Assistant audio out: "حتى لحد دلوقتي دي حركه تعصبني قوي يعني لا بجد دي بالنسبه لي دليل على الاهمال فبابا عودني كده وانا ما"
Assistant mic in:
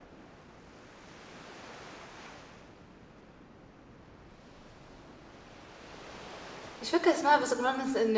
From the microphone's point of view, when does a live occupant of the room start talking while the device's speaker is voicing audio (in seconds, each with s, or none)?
6.8 s